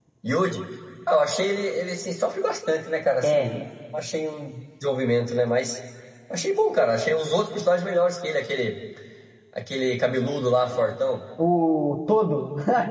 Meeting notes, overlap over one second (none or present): none